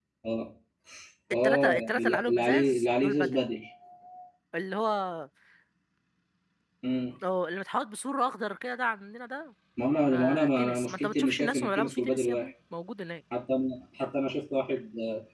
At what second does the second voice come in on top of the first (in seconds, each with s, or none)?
1.4 s